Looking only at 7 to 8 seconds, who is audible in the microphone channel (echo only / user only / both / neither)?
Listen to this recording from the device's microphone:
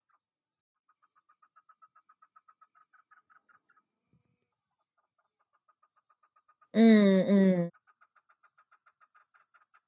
user only